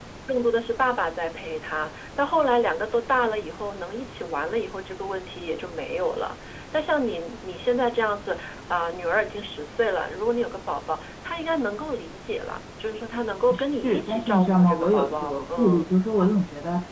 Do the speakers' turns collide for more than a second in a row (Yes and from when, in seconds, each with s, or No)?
Yes, from 13.8 s